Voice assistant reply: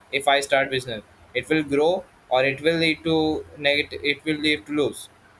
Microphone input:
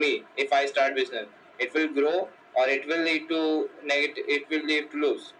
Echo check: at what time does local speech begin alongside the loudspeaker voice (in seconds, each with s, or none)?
none